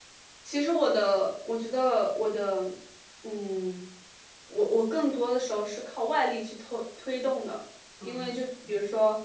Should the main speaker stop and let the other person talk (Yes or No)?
No